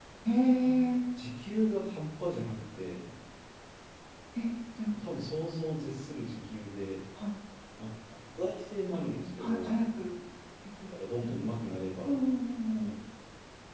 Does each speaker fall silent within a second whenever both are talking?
Yes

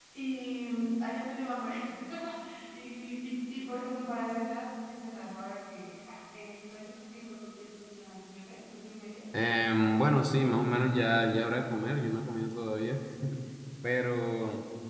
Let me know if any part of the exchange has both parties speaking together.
No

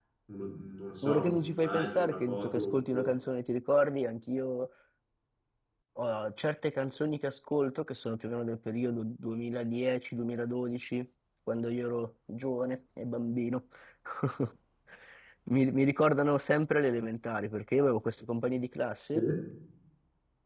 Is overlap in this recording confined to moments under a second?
No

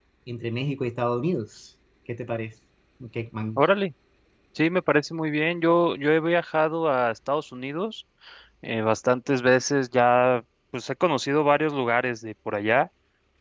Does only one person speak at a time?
Yes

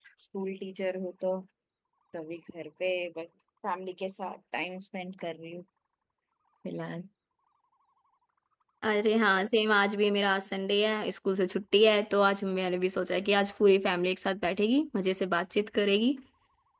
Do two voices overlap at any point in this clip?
No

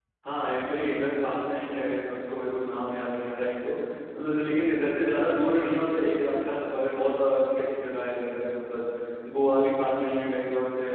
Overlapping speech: No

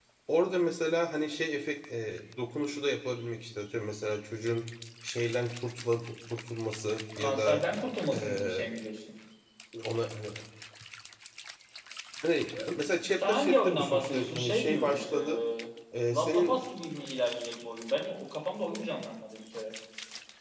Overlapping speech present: Yes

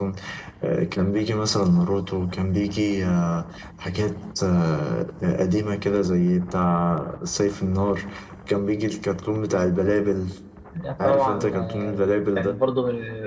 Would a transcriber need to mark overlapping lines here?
Yes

